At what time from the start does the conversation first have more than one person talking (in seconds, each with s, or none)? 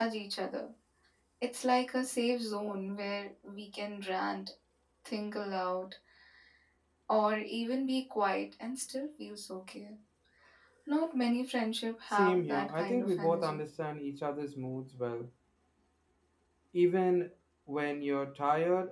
12.1 s